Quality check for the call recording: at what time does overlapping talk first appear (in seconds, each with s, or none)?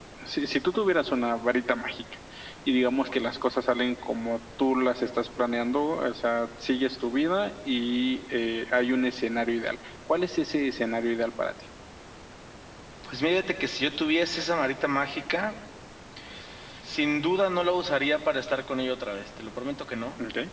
none